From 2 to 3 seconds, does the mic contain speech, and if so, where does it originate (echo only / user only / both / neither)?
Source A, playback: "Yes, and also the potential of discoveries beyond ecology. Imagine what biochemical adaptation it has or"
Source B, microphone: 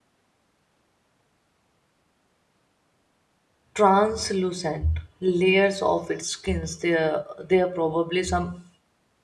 neither